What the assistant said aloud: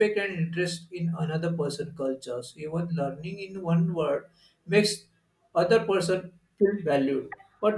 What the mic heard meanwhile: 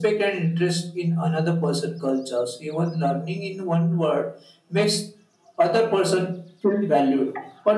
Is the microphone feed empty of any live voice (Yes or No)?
Yes